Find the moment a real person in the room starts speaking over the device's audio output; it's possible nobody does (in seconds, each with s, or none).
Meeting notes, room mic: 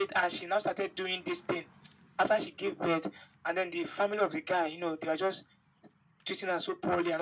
none